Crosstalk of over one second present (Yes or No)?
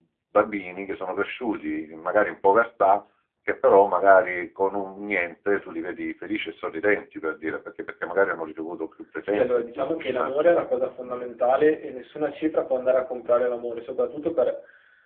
Yes